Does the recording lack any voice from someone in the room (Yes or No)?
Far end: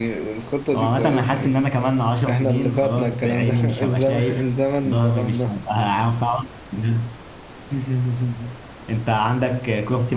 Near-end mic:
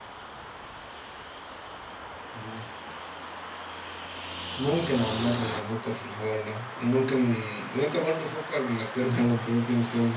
No